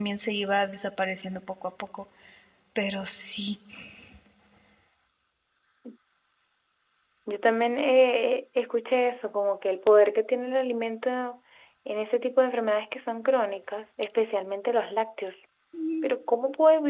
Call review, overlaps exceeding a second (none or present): none